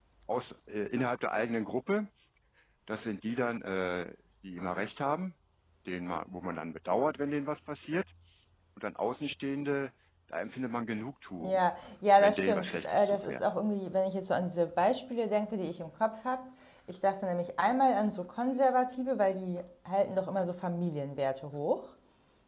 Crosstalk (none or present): present